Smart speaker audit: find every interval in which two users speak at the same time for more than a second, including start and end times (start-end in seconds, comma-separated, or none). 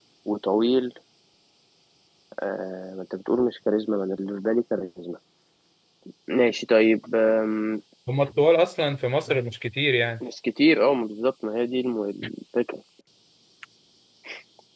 none